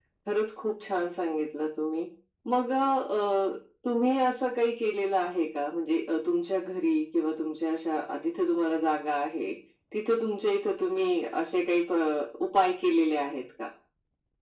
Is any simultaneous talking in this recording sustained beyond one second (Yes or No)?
No